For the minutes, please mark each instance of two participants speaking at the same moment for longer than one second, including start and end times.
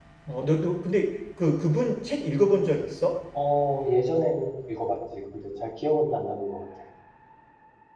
none

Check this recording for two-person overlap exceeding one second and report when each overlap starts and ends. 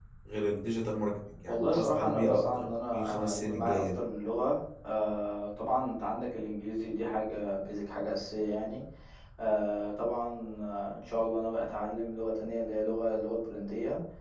1.5-4.0

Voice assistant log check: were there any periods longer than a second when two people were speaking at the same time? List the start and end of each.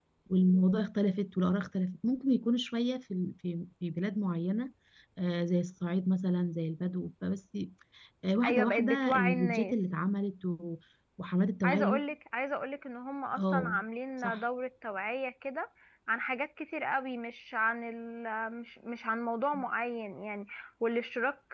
8.4-9.8

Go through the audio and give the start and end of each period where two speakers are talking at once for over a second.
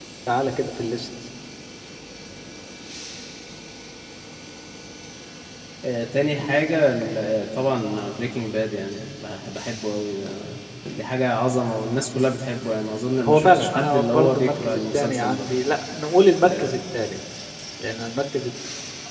13.2-15.5

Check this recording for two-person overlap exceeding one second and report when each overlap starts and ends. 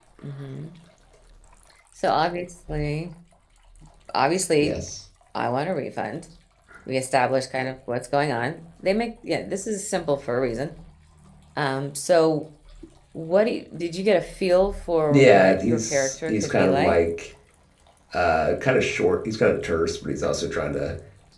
15.1-17.0

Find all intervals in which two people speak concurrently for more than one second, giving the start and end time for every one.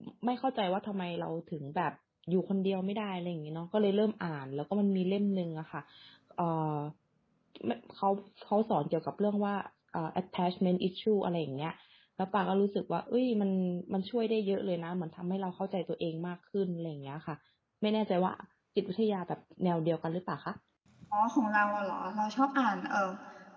none

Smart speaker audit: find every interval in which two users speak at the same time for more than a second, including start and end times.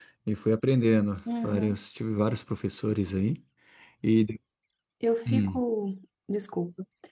none

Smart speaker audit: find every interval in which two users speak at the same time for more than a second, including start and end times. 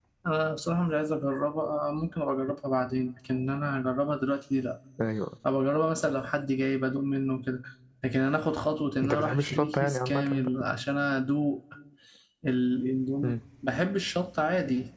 9.0-10.5

